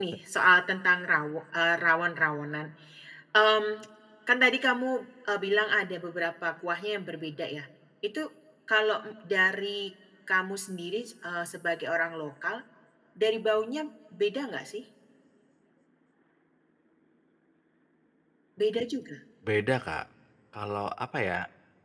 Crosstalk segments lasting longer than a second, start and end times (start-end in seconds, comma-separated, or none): none